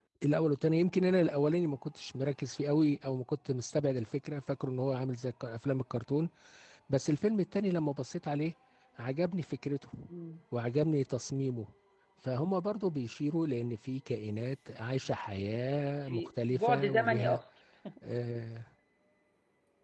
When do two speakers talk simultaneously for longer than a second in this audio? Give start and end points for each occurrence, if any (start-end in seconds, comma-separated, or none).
16.0-17.4